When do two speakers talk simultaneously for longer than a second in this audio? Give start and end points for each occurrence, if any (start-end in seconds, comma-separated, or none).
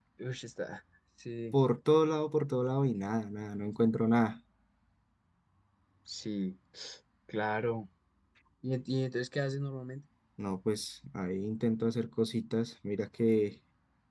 none